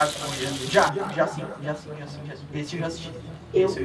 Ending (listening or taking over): taking over